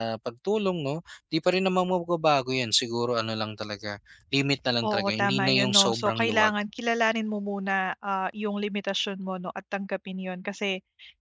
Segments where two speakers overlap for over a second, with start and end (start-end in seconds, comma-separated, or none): 4.8-6.5